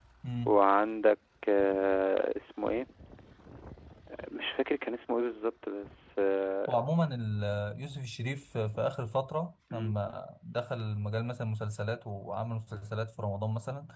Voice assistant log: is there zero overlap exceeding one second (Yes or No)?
Yes